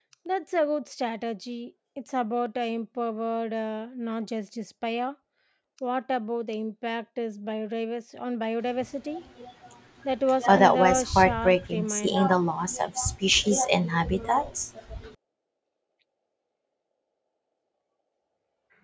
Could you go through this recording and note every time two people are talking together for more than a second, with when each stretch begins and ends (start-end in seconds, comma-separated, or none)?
10.5-12.3